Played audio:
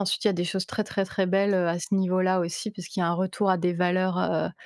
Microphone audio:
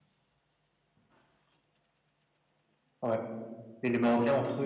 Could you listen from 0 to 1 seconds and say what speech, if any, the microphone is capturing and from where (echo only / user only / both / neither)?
neither